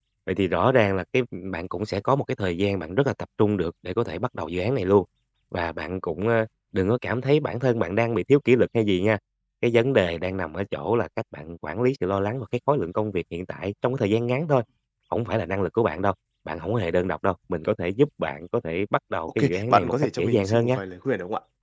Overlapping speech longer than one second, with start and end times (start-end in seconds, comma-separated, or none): 19.4-20.8